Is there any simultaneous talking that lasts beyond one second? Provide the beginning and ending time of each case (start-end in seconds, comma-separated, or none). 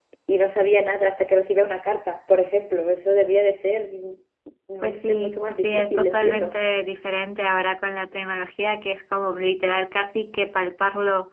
4.8-6.5